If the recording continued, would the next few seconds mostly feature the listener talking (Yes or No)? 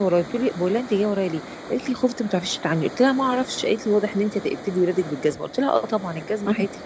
No